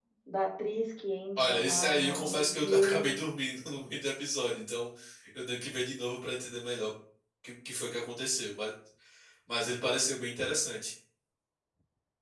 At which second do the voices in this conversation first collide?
1 s

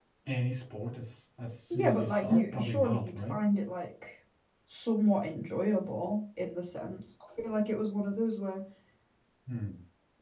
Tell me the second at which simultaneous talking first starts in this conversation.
2 s

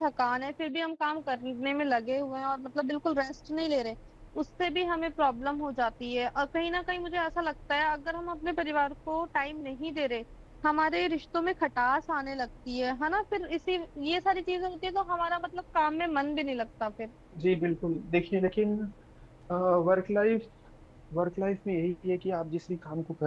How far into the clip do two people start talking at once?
none

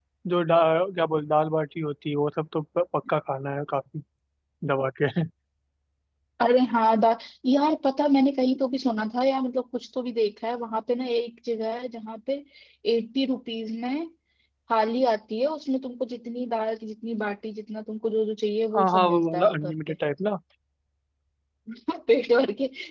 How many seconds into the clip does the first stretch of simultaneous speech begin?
19 s

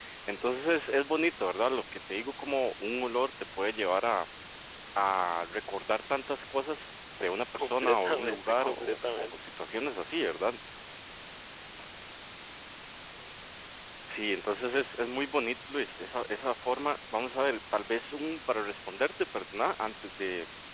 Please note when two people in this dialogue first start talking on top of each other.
8 s

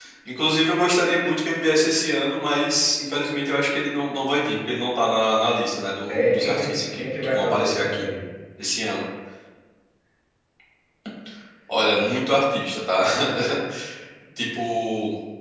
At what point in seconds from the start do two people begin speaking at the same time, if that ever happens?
6 s

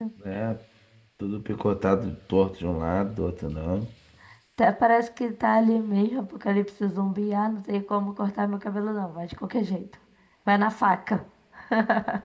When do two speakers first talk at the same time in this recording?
none

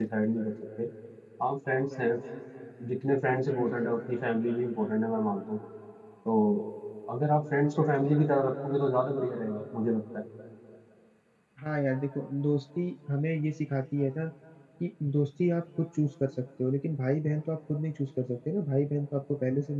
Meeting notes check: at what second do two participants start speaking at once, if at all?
none

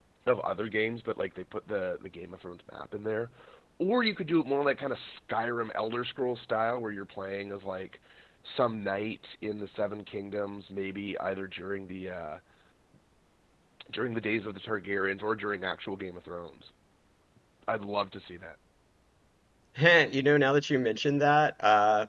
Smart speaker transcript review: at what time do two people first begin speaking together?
none

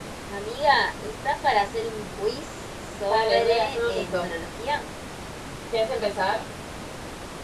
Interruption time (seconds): 3 s

